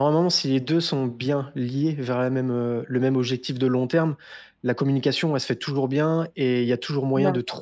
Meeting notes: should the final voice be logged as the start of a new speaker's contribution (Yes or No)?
No